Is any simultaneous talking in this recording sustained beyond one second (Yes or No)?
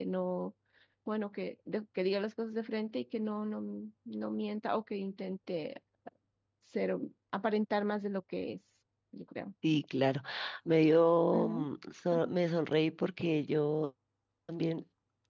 No